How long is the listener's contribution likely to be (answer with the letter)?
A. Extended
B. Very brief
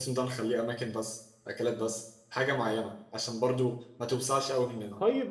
A